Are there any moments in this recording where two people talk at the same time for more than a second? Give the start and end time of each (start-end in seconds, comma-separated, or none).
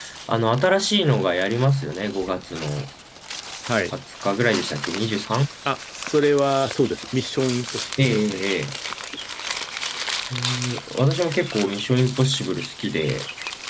none